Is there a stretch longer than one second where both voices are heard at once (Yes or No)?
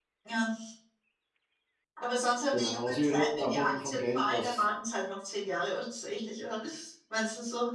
Yes